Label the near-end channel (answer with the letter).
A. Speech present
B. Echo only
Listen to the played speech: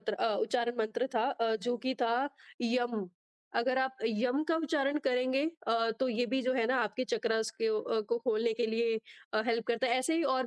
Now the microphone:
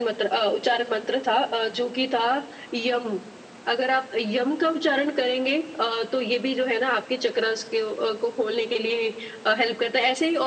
B